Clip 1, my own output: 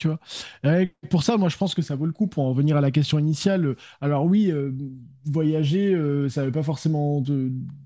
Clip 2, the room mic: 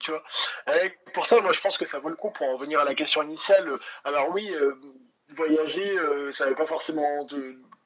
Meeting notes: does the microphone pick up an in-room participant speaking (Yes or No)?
No